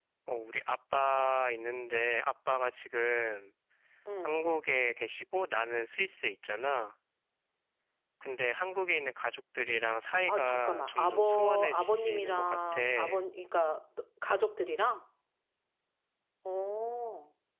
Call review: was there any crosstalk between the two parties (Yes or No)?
Yes